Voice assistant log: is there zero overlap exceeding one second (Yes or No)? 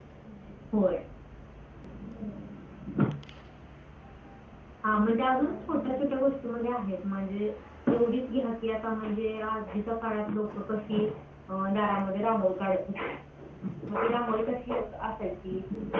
No